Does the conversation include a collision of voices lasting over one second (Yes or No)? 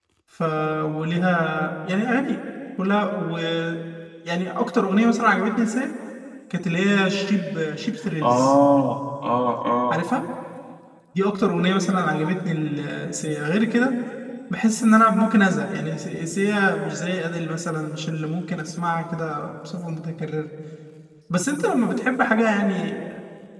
No